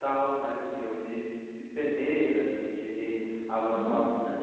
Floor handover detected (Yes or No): No